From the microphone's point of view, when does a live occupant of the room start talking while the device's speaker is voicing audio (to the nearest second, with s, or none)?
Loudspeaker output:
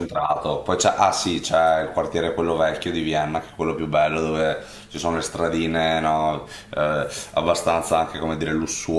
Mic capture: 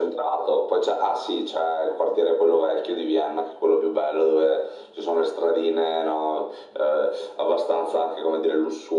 none